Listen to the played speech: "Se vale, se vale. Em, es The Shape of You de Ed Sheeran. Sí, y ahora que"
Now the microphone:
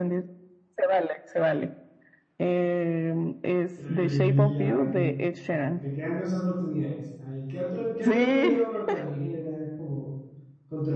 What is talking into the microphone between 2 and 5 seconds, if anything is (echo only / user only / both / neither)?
both